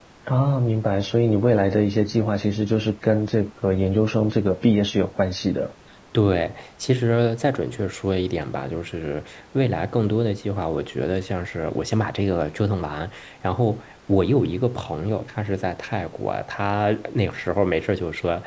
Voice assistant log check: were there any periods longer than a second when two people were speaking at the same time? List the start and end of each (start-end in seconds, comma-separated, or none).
none